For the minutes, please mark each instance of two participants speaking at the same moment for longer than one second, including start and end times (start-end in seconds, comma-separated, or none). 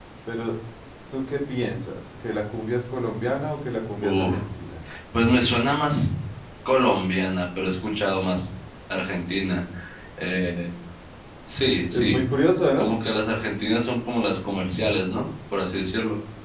none